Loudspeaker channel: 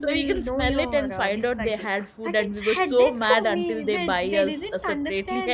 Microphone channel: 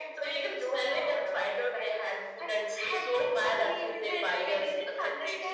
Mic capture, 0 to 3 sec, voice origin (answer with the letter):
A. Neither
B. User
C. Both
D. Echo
D